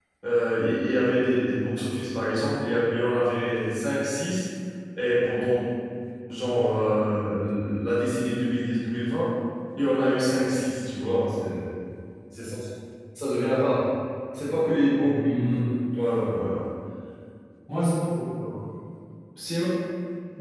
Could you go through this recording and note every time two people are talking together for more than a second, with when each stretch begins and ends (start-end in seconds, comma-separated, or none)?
none